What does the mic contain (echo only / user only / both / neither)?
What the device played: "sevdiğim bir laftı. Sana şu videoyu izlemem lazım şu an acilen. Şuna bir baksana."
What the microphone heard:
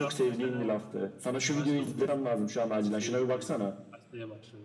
both